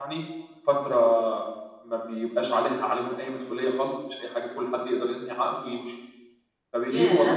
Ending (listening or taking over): listening